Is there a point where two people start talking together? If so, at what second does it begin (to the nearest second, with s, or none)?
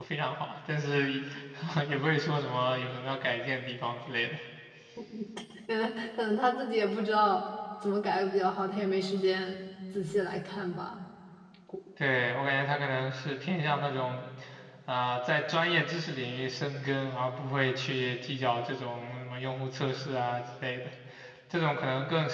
none